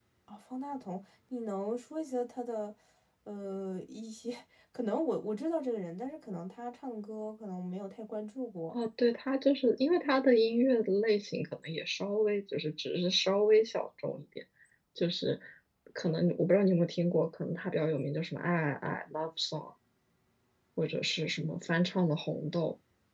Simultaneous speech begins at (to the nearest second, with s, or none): none